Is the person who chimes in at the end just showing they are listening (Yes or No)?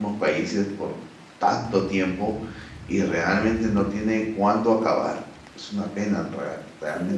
No